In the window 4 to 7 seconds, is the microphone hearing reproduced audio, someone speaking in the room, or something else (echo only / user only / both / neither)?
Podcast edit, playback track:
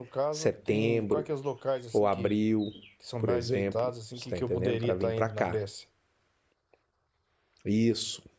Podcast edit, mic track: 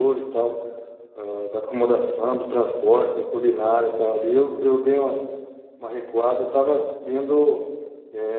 user only